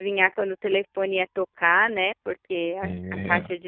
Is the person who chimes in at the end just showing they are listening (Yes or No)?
Yes